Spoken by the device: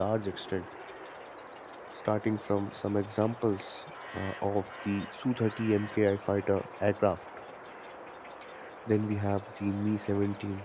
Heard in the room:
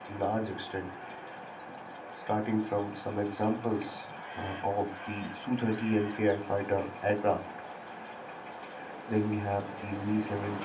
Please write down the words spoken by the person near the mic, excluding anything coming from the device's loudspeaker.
none

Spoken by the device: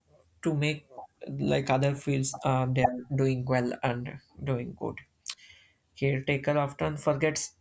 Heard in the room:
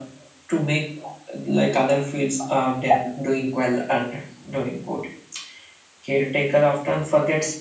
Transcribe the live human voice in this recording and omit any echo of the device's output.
none

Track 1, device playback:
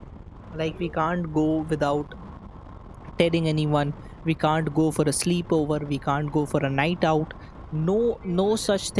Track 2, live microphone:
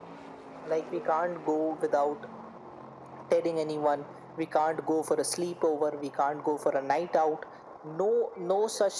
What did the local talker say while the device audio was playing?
none

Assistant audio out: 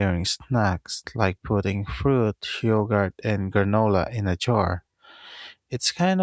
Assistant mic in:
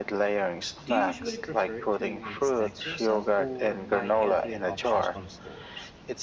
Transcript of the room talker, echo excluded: Do you usually prefer to make snacks yourself or buy healthier options from stores?

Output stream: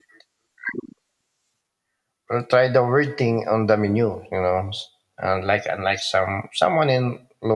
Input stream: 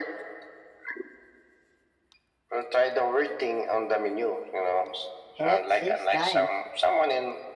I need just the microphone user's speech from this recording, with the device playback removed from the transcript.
head six times.

